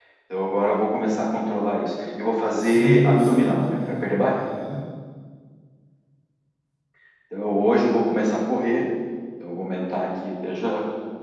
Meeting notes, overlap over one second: present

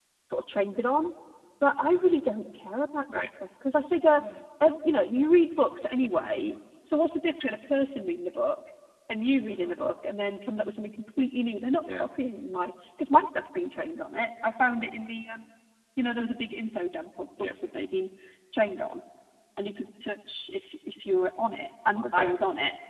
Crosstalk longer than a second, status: none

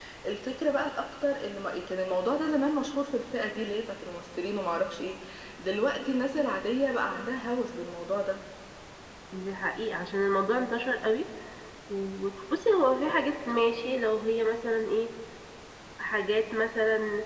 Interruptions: none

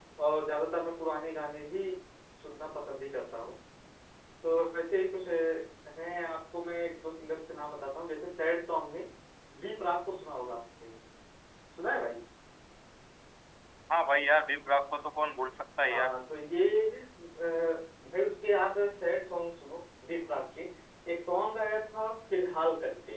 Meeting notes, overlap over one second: none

